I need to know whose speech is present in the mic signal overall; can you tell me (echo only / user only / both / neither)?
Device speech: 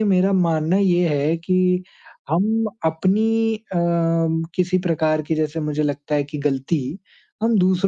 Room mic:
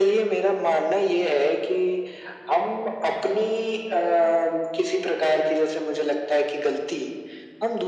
echo only